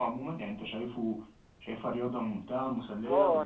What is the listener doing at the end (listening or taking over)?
taking over